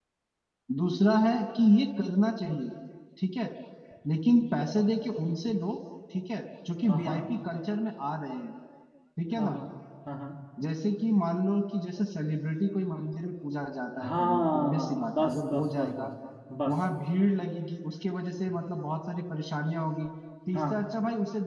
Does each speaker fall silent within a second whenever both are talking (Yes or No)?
No